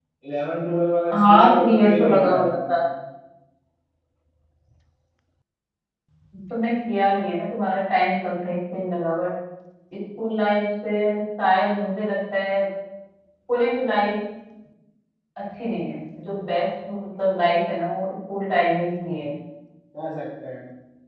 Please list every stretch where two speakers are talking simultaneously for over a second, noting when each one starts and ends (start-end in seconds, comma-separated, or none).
1.1-2.8